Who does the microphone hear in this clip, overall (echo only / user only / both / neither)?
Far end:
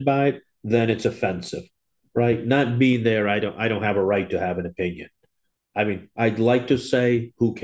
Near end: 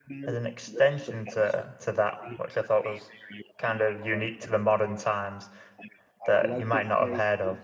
both